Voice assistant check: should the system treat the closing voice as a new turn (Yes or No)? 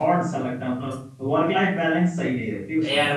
Yes